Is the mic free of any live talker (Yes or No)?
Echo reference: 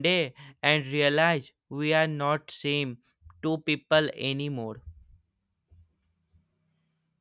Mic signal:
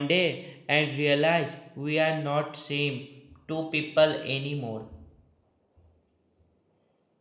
Yes